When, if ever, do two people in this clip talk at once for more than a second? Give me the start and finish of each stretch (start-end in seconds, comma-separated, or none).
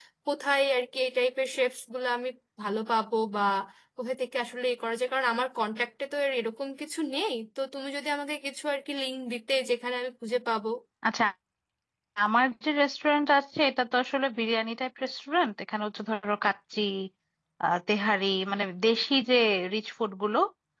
none